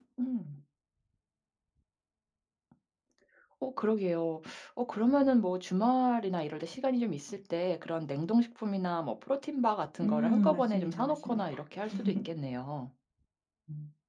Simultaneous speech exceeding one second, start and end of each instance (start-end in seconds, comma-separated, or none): 10.0-11.4